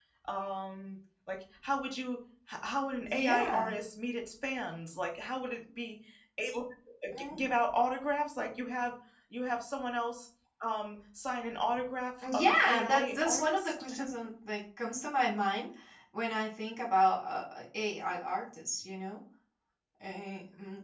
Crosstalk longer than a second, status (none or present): present